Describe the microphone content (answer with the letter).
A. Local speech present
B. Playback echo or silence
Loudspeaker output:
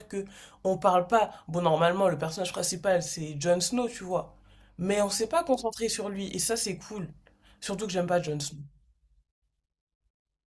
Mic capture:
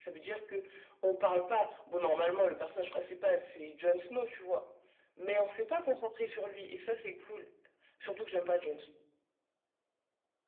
B